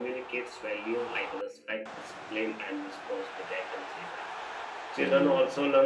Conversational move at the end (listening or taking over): listening